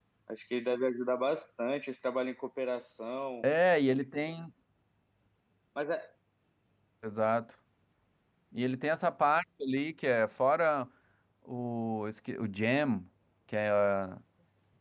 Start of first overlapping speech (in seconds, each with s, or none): none